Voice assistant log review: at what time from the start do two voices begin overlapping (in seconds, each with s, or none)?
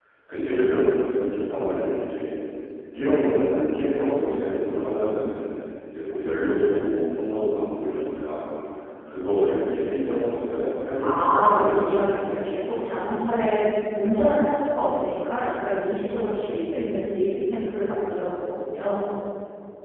11.0 s